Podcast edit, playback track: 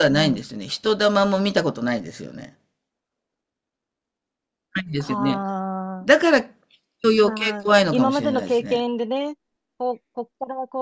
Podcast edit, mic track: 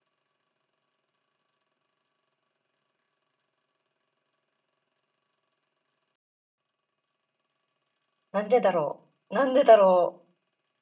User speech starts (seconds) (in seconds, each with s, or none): 8.3 s